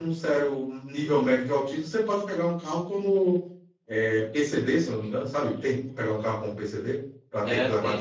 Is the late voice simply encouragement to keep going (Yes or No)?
No